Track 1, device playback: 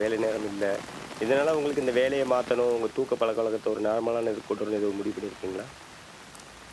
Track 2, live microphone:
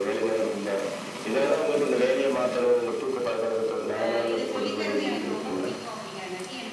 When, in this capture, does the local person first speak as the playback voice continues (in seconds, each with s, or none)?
4.0 s